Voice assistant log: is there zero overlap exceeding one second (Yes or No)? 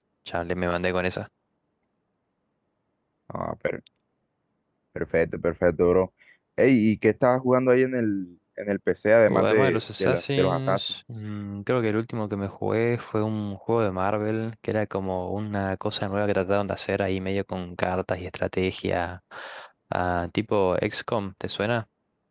No